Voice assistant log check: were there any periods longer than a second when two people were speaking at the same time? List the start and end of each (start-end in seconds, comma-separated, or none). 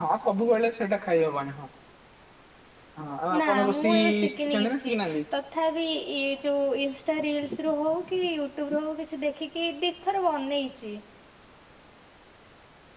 3.4-4.9